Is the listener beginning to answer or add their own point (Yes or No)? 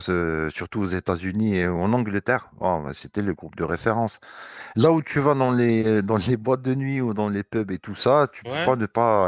No